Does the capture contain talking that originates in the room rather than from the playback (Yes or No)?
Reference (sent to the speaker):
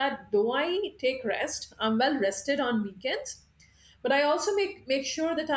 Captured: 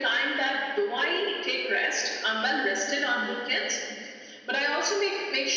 No